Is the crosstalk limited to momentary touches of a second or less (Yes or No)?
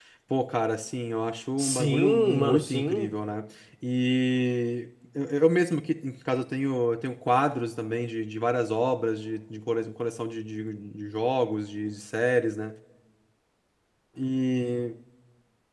No